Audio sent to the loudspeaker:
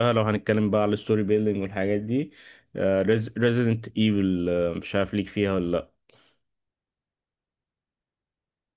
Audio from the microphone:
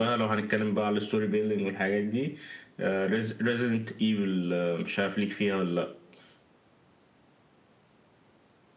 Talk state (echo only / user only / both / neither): echo only